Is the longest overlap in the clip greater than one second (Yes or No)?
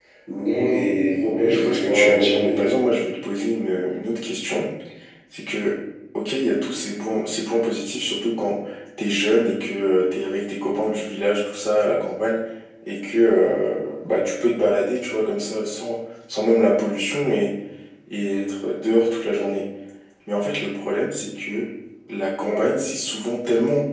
Yes